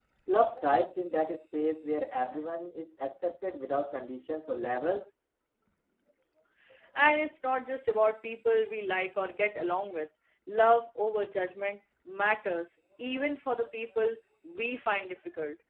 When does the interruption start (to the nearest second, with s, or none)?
none